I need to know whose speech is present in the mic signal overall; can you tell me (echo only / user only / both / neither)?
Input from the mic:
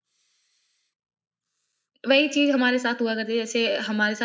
user only